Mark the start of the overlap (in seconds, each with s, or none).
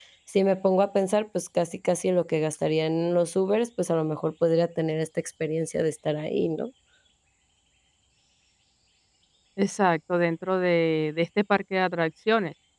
none